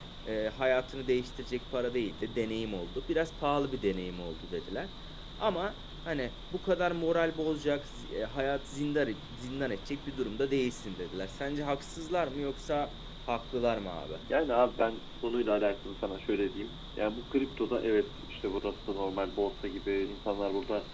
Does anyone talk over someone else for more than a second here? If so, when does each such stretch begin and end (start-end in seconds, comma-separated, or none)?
none